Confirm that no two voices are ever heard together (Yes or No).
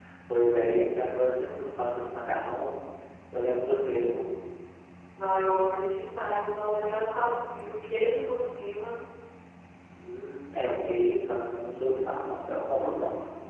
Yes